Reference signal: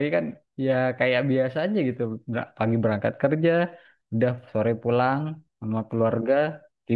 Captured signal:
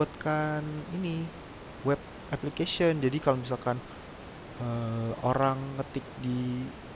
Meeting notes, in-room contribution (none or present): present